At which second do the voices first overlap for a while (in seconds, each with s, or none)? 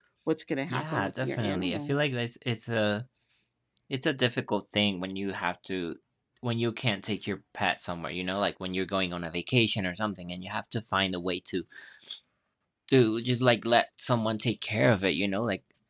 0.7 s